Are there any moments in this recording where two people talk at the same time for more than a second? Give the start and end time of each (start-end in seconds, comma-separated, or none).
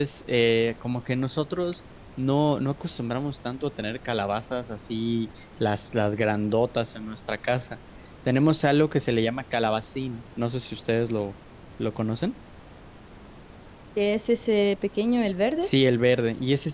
none